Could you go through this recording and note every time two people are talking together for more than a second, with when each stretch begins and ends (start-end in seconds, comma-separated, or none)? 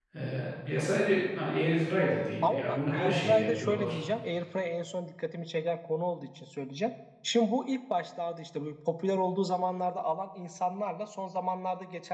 2.4-4.0